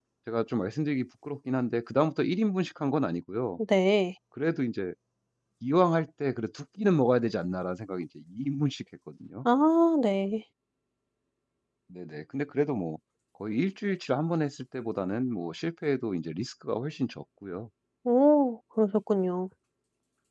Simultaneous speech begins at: none

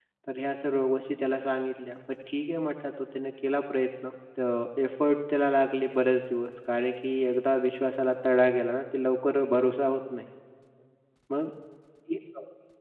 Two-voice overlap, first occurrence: none

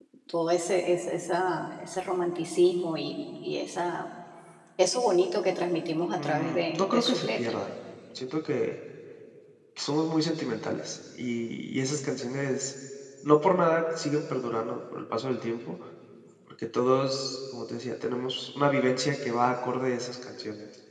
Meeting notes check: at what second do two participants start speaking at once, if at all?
6.2 s

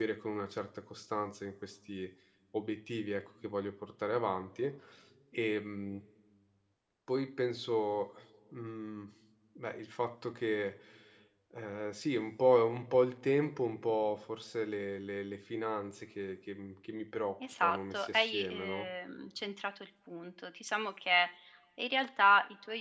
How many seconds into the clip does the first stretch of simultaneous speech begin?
17.4 s

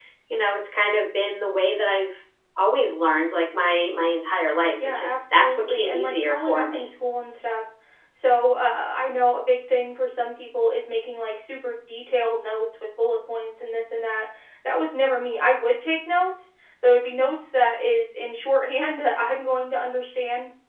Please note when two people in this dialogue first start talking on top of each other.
4.8 s

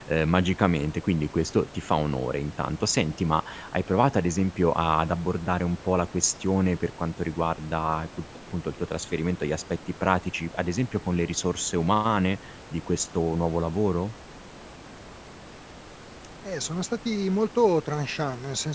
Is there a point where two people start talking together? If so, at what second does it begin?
none

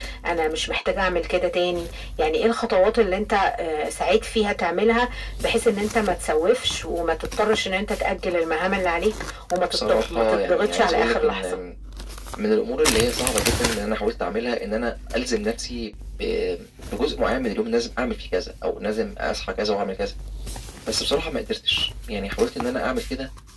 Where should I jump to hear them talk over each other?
9.7 s

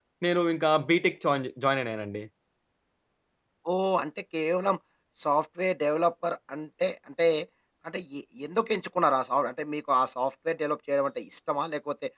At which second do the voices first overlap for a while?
none

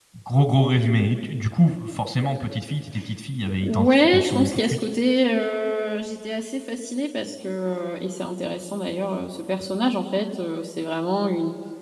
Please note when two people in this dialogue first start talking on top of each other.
3.6 s

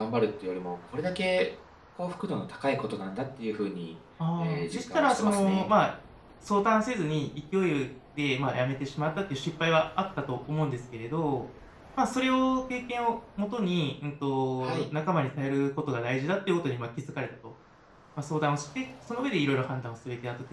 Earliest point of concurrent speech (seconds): 4.4 s

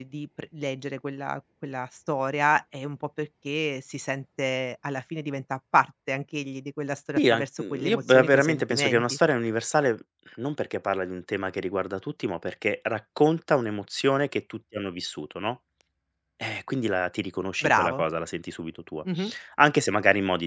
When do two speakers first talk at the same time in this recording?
7.2 s

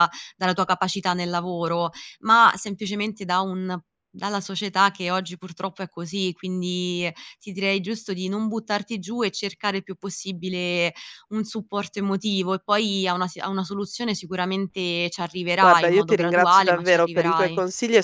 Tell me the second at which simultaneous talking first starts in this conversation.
15.6 s

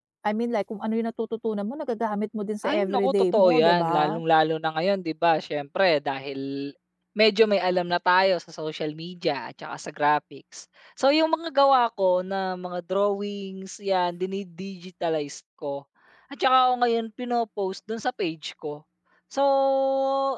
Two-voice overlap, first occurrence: 2.6 s

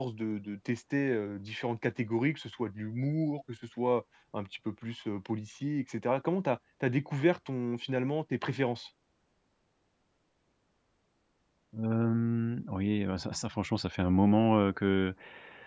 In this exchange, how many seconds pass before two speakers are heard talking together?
none

